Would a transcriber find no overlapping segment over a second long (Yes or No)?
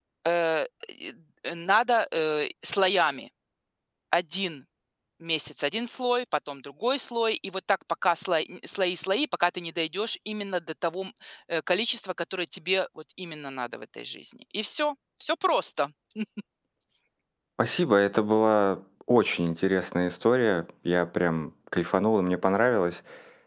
Yes